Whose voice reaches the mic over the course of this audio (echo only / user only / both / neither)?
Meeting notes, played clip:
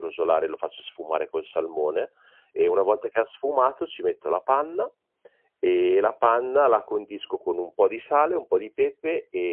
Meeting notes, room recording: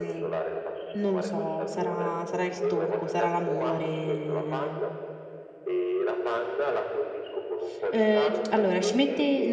both